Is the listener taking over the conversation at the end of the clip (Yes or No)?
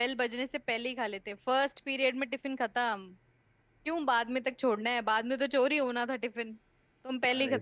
Yes